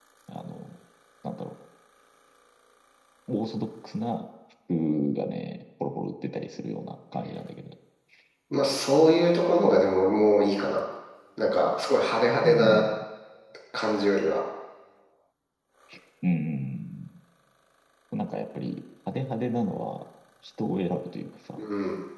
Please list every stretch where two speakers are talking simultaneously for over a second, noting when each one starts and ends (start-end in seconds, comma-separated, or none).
none